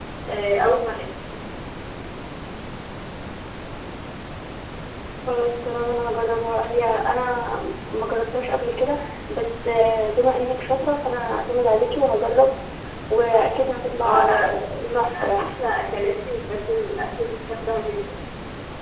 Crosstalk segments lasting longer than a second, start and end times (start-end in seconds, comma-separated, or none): 14.0-15.5